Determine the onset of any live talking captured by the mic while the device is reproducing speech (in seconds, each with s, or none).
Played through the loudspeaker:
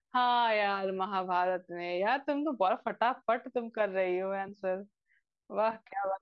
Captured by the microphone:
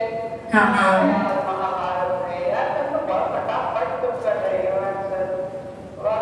0.5 s